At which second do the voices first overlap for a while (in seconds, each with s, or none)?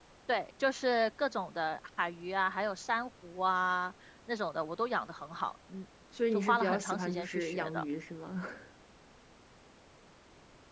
6.3 s